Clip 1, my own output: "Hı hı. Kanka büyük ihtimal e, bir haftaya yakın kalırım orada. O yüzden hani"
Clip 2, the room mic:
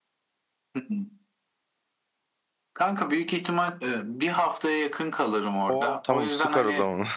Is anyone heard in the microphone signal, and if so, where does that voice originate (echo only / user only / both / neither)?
both